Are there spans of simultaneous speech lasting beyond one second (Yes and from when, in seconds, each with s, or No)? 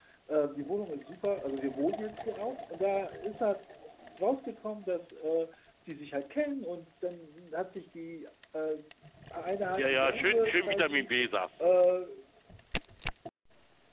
Yes, from 9.8 s